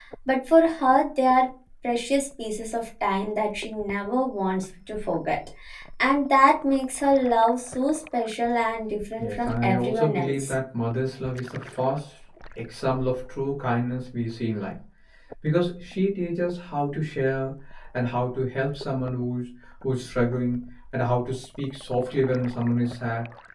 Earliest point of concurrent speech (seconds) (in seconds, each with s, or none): 9.2 s